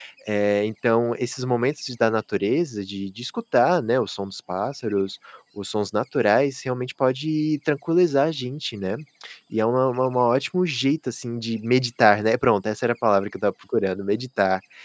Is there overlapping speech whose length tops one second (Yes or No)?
No